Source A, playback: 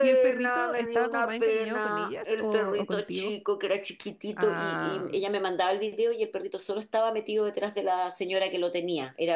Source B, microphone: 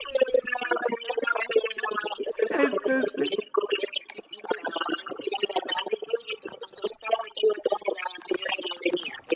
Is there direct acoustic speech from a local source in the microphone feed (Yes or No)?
Yes